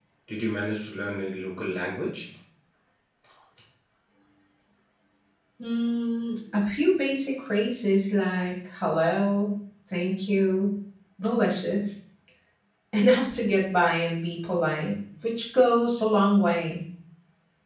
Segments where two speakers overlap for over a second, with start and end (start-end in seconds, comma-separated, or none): none